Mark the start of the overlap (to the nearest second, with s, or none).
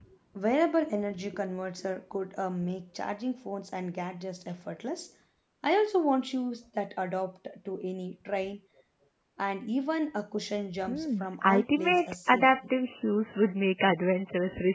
11 s